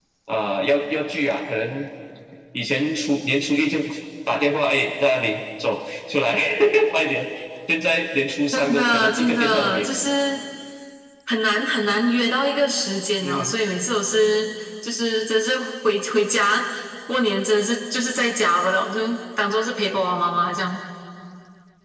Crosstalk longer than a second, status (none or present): present